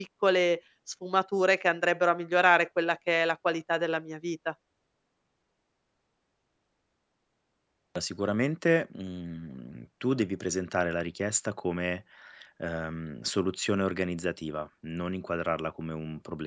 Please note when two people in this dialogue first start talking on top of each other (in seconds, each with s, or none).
none